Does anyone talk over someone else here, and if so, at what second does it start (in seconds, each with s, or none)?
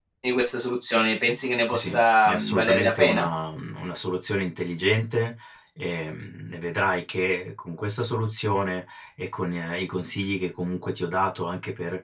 1.7 s